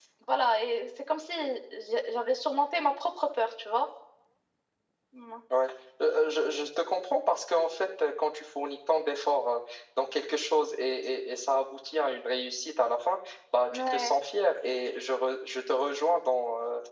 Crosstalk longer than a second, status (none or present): none